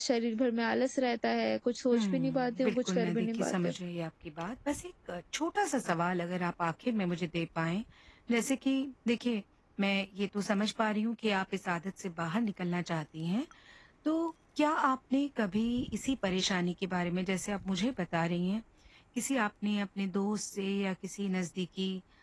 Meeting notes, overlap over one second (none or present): present